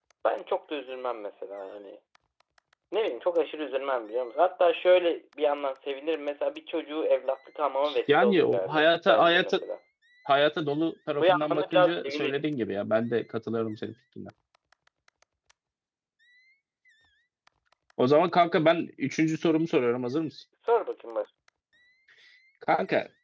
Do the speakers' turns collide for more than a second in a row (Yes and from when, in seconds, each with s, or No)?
Yes, from 8.1 s